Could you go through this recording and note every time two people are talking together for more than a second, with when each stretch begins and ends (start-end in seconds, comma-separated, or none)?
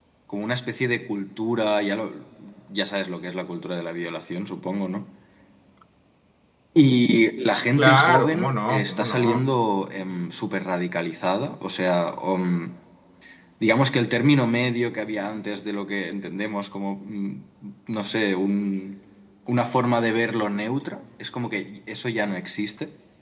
7.8-9.4